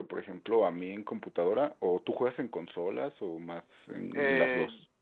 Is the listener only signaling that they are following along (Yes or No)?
No